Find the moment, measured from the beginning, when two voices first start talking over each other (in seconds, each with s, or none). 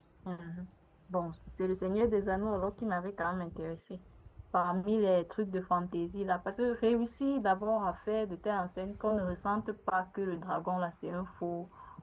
none